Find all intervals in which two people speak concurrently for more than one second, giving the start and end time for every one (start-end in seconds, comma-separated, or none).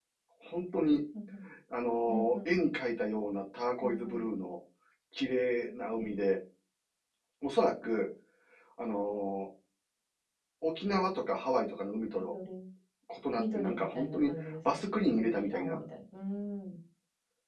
13.4-15.8